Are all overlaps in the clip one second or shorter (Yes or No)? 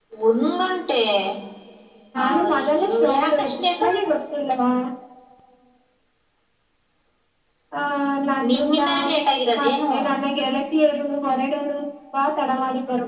No